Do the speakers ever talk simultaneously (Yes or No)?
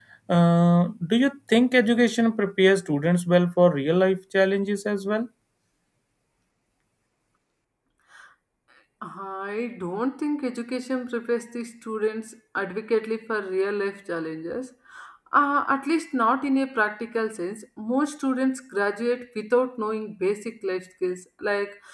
No